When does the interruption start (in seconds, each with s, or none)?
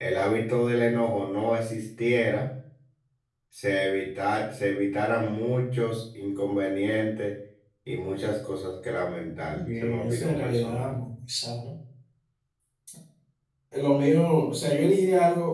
9.5 s